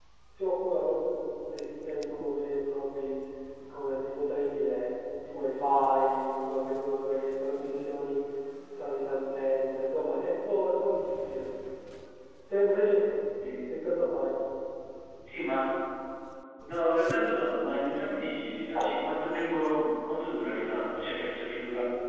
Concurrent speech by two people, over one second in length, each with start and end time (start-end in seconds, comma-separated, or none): none